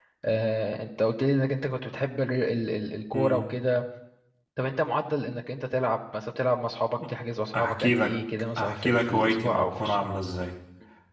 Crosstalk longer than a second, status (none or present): present